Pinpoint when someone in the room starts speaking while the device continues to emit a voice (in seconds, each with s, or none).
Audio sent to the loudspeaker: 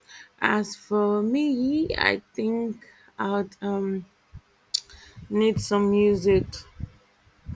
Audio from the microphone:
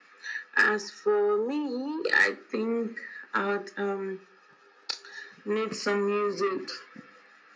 none